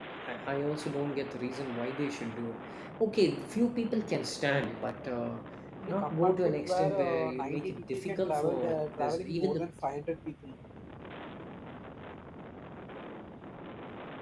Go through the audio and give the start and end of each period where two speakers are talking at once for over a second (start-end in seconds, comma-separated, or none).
5.9-9.7